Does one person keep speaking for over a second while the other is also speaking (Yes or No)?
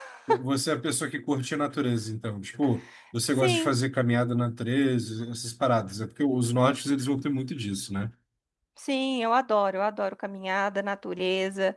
No